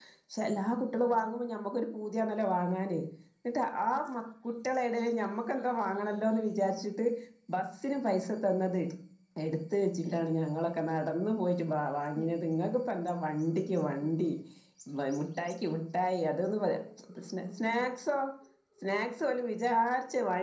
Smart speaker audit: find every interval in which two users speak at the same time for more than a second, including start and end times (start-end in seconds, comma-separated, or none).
none